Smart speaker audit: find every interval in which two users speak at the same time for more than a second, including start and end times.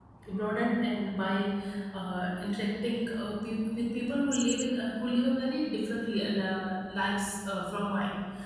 none

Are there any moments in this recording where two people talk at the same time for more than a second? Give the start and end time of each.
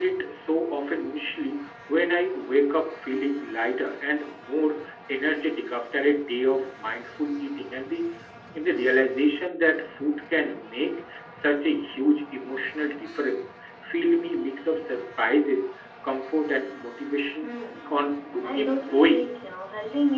17.9-19.3

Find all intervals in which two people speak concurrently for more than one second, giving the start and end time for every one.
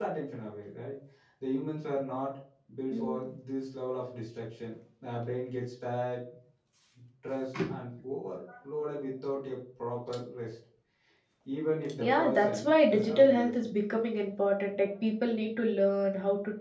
12.0-13.5

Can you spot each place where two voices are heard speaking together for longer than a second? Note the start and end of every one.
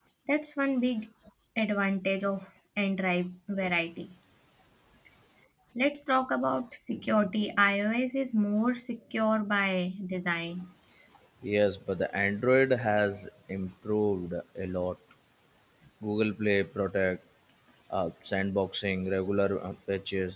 none

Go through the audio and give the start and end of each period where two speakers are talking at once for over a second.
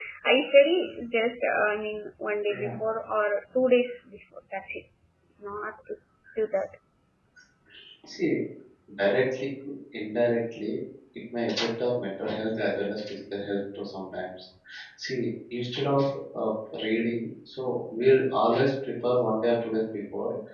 none

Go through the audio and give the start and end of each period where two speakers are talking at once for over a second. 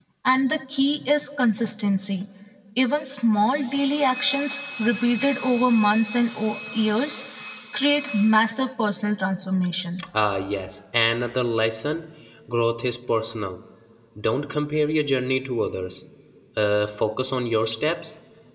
none

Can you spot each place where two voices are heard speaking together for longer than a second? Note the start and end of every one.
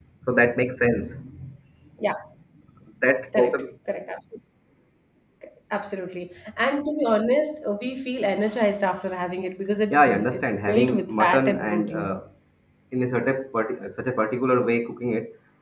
9.9-12.1

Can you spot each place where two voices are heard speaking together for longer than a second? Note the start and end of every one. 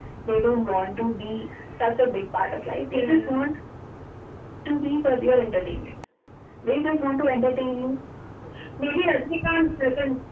none

